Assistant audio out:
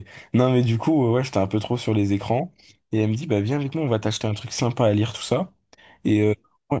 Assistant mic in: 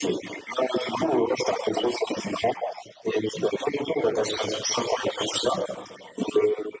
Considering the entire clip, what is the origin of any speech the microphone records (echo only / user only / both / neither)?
echo only